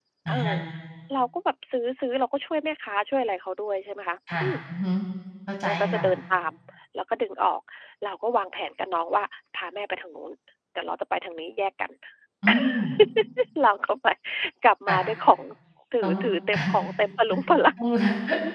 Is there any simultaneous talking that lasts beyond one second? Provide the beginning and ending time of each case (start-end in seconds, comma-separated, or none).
none